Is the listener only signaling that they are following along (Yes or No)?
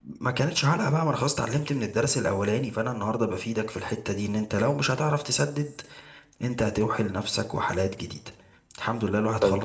No